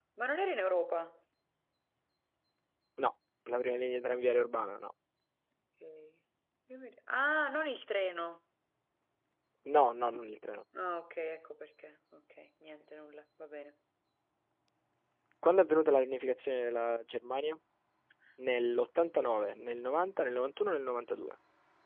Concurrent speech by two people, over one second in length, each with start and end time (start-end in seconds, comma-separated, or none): none